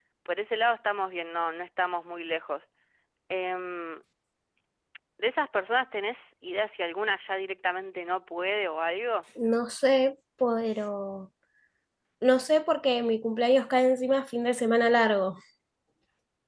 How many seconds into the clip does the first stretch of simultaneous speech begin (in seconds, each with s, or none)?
none